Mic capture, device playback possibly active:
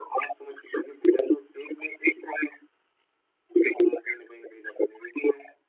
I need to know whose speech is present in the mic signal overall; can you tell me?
echo only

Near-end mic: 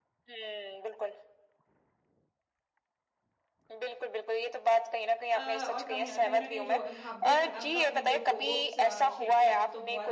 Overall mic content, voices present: both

